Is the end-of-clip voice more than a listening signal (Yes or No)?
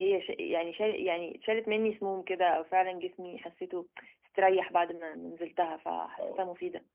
No